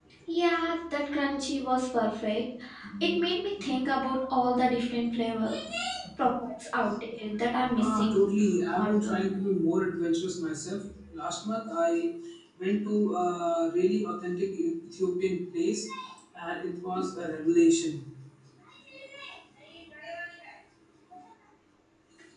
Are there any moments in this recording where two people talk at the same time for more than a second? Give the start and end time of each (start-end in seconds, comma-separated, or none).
none